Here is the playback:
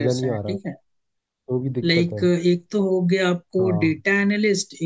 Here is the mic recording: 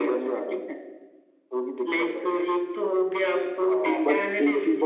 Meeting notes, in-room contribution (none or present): present